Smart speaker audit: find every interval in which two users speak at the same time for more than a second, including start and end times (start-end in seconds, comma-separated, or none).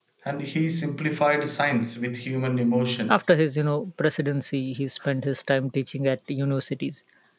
none